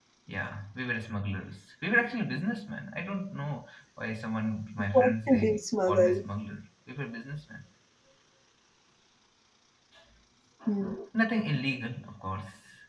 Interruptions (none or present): present